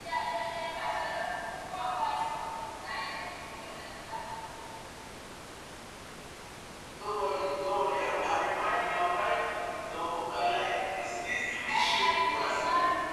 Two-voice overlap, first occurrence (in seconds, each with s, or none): 11.7 s